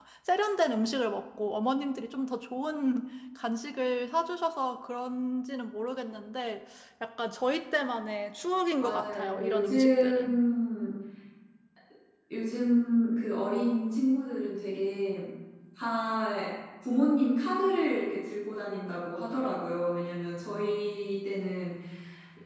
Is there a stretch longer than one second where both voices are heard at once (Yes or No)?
Yes